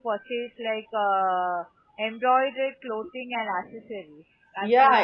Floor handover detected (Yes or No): Yes